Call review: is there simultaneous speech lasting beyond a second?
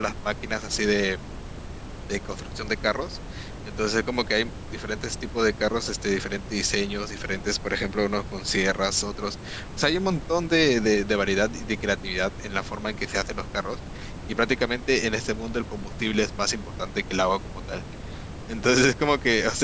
No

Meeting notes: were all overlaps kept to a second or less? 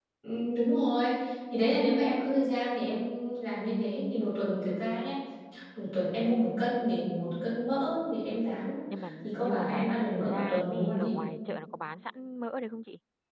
No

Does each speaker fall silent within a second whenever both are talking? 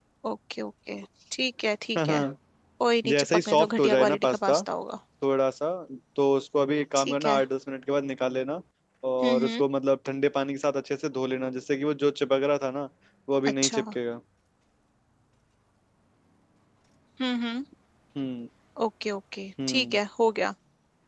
No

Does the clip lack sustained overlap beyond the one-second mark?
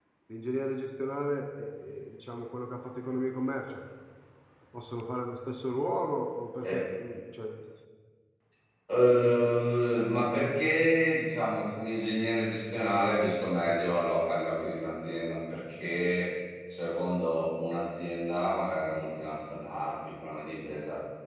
Yes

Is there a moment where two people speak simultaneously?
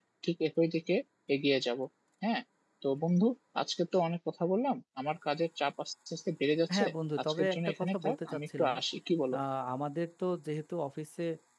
Yes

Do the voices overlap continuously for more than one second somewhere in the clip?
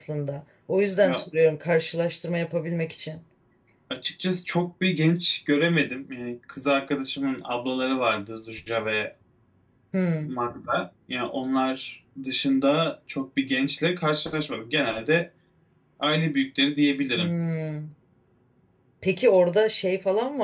No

